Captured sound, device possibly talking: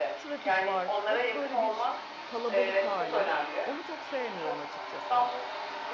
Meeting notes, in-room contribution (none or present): present